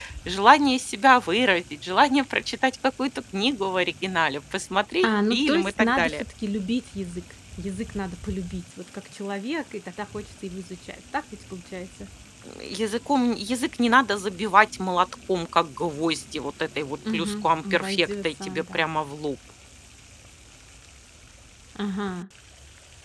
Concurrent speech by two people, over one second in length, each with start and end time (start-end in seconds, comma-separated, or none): 5.0-6.2, 17.1-18.8